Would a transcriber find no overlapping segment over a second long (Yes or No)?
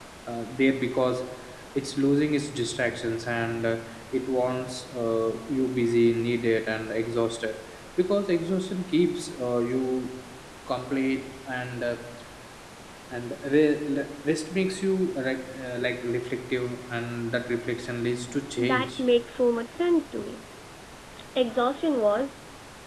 Yes